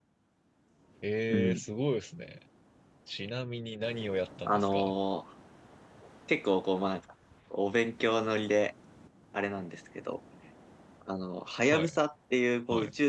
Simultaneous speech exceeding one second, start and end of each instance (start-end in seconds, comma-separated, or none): none